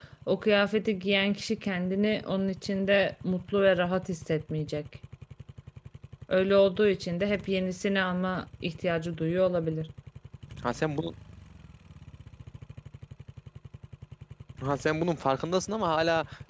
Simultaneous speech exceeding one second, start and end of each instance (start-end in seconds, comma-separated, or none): none